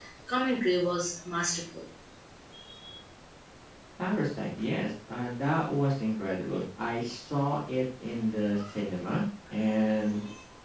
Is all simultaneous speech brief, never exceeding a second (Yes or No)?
Yes